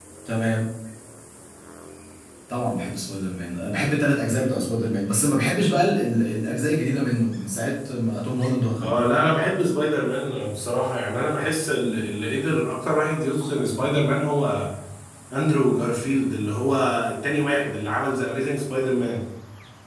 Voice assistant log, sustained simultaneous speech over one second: none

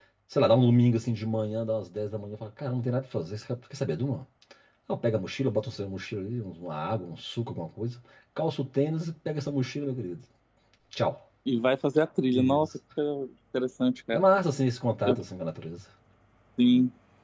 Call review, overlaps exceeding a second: none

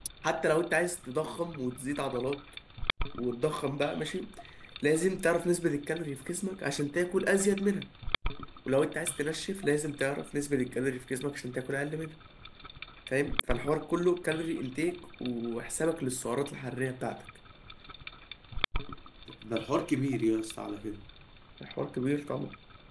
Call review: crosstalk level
none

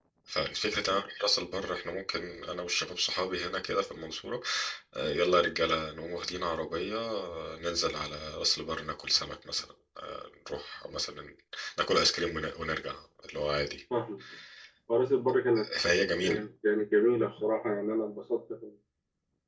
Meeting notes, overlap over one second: none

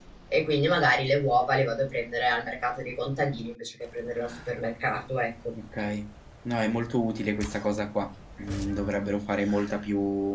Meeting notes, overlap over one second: none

